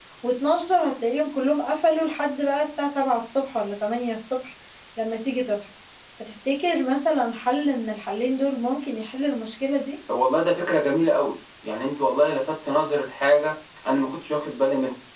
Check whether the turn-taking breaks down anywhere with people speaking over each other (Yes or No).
No